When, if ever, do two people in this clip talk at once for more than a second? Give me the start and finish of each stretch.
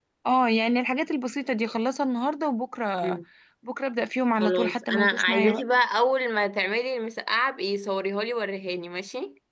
4.4-5.6

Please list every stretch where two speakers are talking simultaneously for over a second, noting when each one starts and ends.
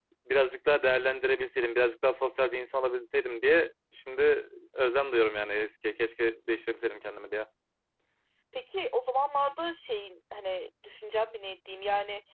none

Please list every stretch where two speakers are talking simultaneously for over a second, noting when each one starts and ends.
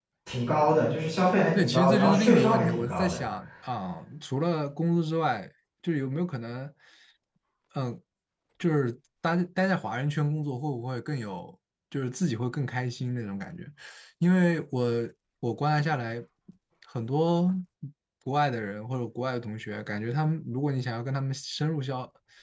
1.6-3.2

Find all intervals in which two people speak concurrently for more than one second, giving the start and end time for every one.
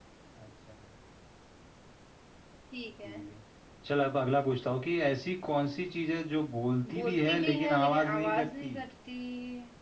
6.9-8.7

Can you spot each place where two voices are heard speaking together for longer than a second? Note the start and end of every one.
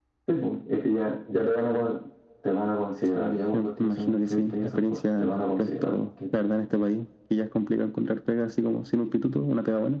3.1-5.9

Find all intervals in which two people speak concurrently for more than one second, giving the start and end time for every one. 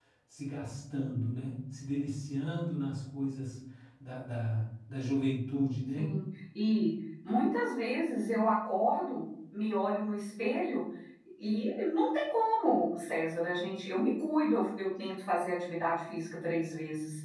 none

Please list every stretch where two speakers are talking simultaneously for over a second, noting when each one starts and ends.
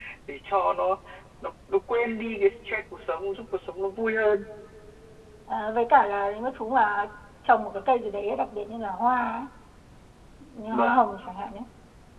none

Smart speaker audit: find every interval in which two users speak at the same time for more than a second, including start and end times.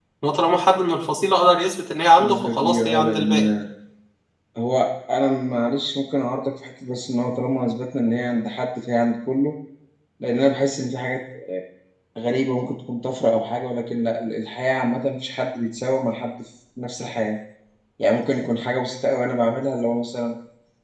2.2-3.4

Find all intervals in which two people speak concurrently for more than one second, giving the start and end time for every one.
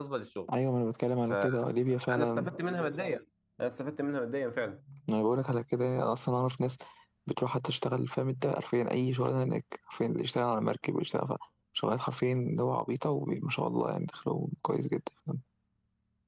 none

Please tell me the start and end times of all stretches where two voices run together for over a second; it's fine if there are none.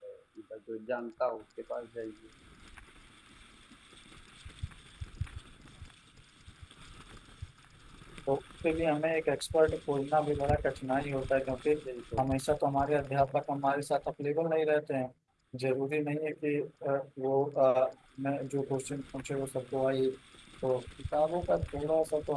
none

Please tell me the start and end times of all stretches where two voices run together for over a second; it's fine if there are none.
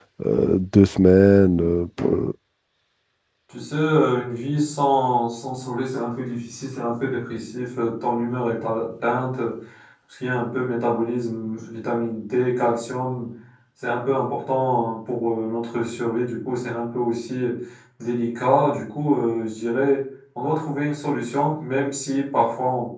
none

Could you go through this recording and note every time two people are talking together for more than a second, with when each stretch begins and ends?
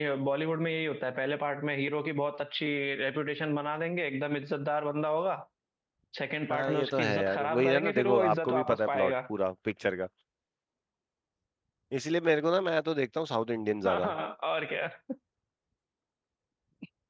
6.5-9.1

